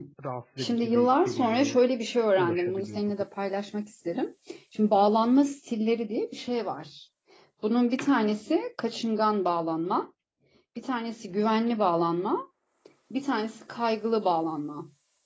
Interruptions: present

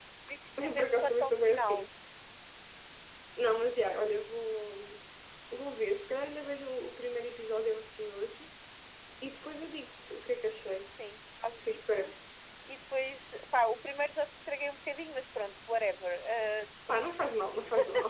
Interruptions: present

